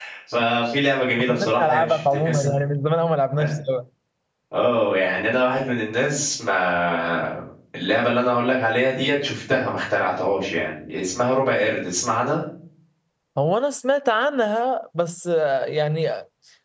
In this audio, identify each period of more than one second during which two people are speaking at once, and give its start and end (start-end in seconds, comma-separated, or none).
1.2-2.5